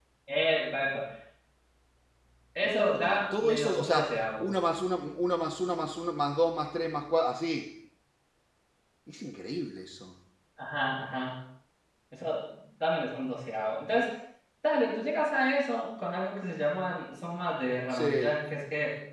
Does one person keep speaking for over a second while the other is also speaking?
Yes, from 2.6 s

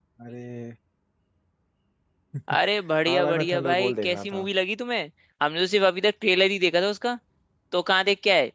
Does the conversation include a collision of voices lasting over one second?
Yes, from 3.1 s

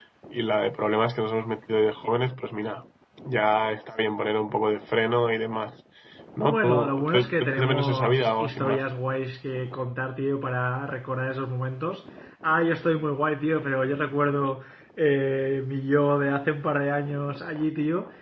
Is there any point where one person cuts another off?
Yes, from 6.5 s

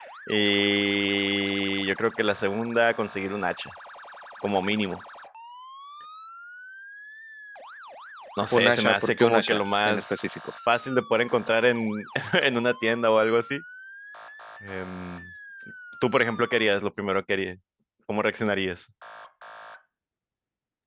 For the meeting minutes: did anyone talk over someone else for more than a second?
Yes, from 8.5 s

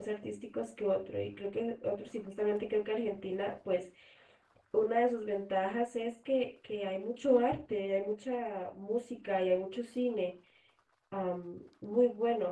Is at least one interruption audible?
No

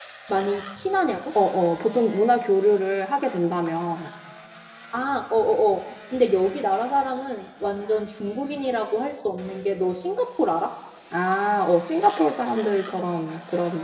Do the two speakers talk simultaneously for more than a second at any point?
No

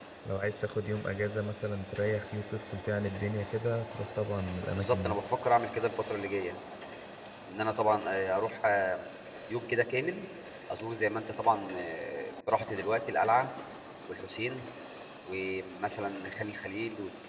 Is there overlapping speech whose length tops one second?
No

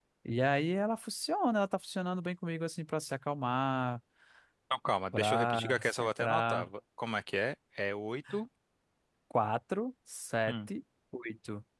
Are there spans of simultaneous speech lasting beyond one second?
Yes, from 5.1 s

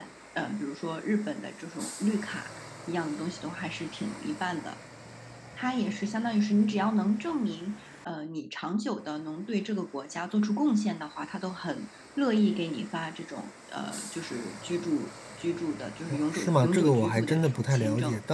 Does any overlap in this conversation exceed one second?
Yes, from 16.1 s

